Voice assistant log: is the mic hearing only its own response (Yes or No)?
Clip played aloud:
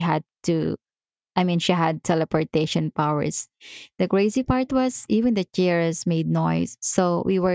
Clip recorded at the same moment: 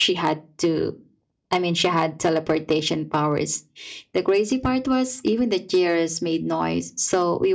Yes